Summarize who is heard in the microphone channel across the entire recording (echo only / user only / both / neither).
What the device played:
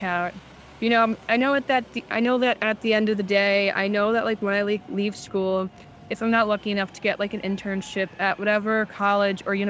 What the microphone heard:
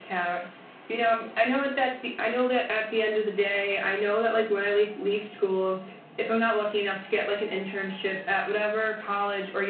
echo only